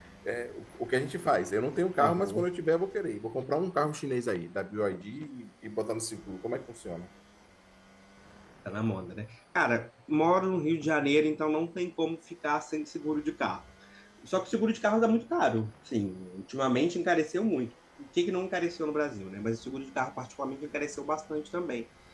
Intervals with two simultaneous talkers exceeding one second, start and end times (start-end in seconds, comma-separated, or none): none